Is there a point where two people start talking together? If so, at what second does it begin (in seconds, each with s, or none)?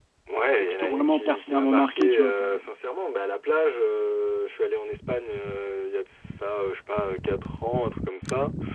0.6 s